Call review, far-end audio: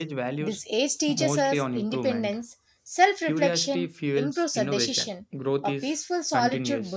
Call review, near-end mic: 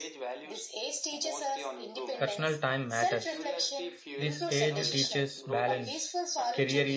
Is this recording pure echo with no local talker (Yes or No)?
No